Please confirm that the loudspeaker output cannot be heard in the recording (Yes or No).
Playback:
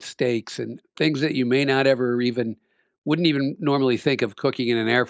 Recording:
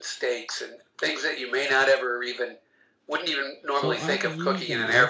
No